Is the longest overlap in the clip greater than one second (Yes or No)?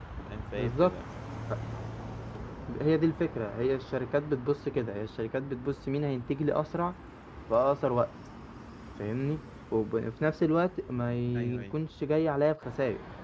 No